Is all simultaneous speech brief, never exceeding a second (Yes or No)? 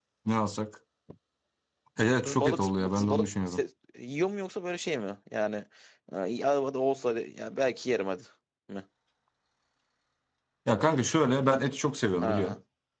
No